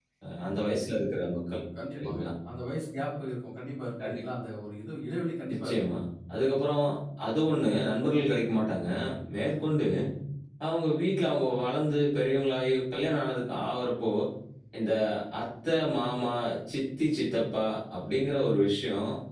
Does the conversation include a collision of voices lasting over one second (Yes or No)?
No